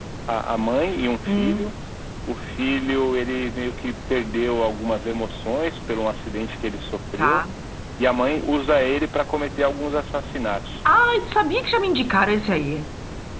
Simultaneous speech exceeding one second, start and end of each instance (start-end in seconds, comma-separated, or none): none